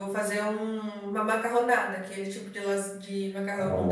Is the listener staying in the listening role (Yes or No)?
No